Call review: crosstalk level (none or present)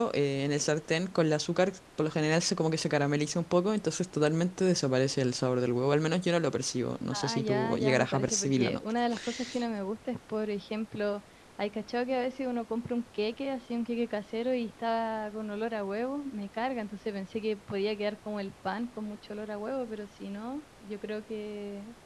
present